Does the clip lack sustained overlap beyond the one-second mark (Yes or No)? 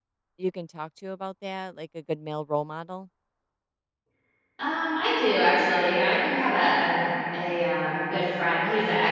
Yes